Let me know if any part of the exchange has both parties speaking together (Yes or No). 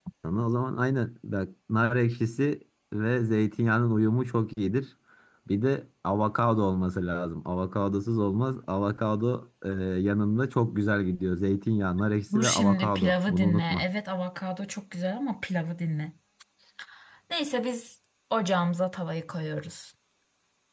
Yes